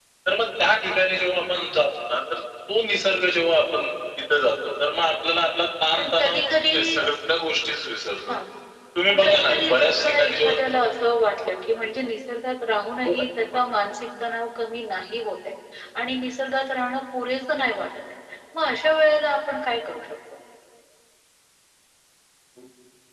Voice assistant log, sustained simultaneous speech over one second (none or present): present